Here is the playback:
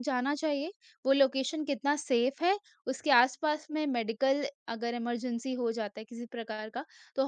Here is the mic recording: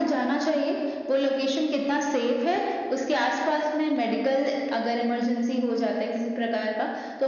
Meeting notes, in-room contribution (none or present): none